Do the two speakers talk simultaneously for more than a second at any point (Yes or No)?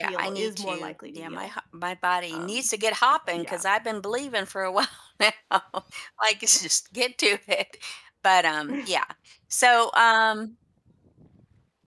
Yes